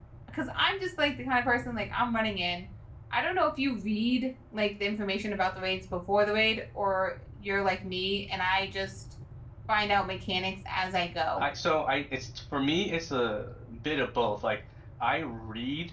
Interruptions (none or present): none